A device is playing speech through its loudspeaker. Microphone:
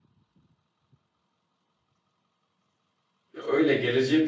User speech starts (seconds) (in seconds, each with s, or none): 3.3 s